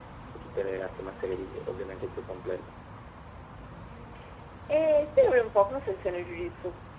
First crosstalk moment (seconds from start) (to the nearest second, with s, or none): none